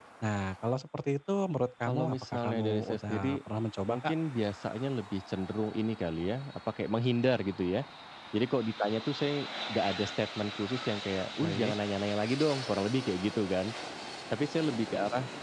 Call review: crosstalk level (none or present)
present